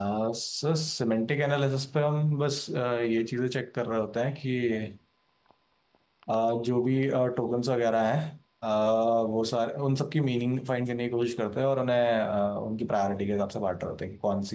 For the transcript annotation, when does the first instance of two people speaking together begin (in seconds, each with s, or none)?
none